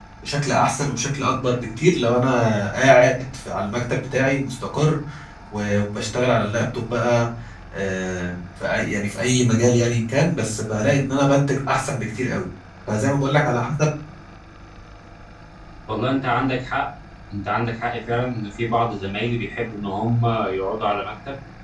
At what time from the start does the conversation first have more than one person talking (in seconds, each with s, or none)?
none